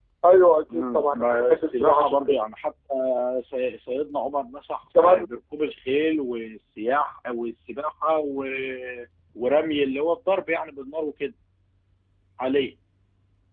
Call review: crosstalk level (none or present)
present